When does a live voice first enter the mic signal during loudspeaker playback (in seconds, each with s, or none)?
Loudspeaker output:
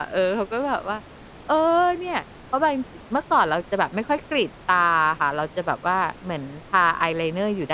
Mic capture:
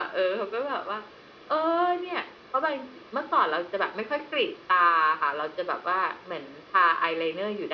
none